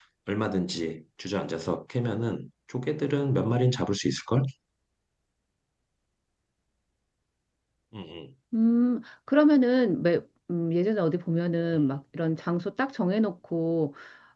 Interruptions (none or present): none